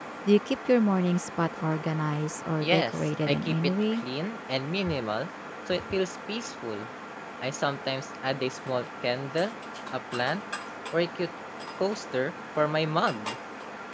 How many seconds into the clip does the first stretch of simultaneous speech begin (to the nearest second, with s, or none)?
3 s